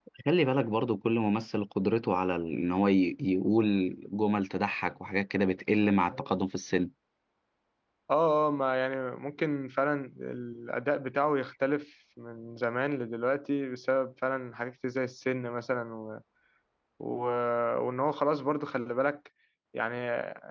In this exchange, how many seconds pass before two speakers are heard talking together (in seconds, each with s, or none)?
none